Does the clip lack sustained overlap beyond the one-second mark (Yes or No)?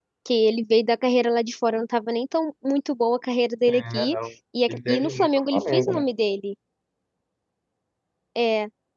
No